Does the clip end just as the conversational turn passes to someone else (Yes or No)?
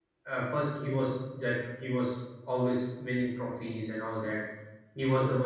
No